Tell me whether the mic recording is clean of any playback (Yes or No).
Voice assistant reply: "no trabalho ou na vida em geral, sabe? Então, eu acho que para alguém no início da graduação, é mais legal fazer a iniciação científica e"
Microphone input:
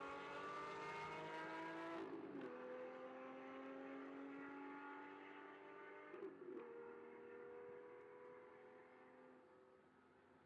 Yes